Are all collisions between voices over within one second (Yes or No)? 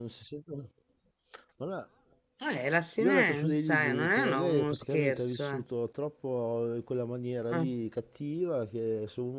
No